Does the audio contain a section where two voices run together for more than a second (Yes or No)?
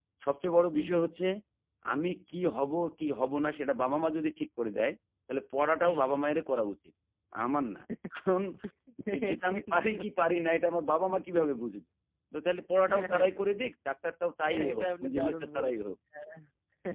Yes